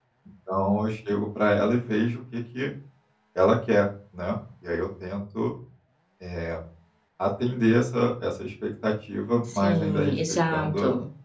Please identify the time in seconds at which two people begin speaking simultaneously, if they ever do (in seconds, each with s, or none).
9.5 s